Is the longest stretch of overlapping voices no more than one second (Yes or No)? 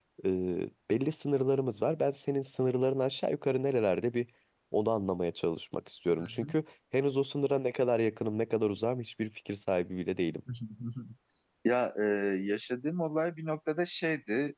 Yes